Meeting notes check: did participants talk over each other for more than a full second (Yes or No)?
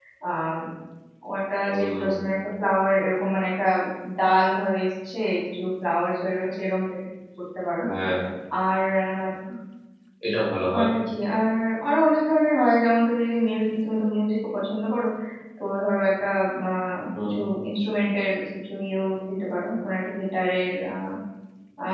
No